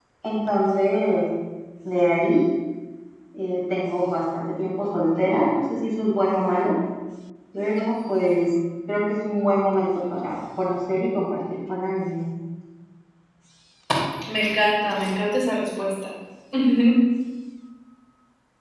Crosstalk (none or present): none